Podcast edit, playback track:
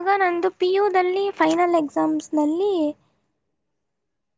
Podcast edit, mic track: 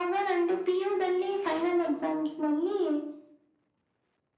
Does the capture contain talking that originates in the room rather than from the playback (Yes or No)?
No